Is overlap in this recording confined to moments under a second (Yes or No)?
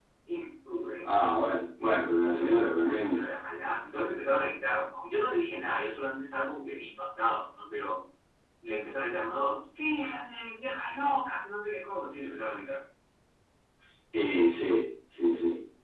No